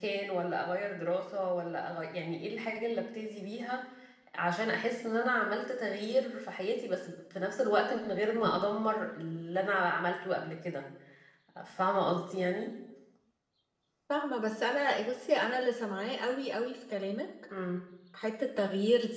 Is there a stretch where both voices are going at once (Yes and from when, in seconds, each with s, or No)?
No